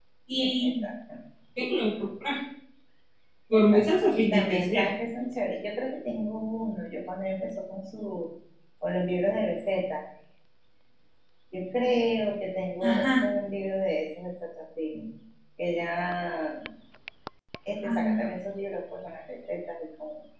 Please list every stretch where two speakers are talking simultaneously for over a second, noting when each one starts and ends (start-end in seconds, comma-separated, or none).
3.5-4.8